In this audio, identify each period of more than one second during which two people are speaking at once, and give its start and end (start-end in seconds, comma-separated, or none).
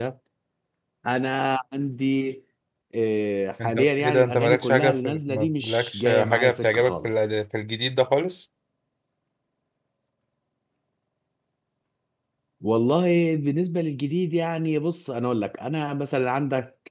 3.6-7.1